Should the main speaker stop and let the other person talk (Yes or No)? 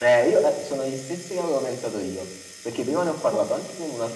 No